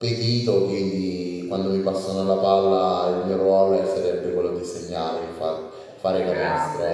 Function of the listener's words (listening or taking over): taking over